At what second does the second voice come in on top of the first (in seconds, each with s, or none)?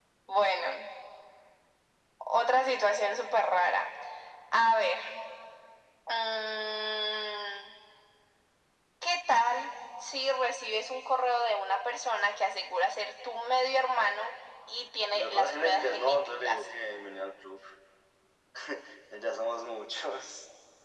15.1 s